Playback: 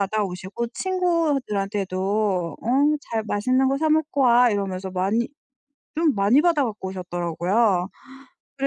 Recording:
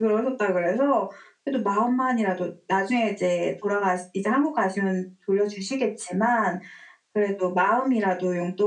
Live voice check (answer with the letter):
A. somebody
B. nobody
A